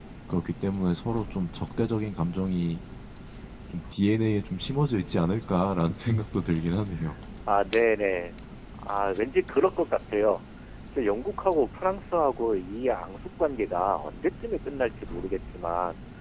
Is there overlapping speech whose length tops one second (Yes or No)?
No